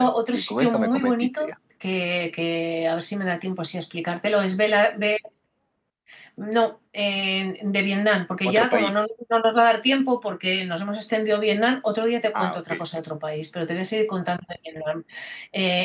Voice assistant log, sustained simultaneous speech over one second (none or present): present